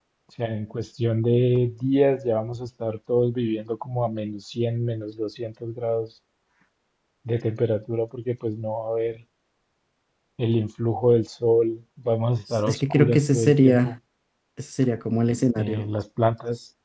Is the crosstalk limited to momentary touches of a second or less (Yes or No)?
No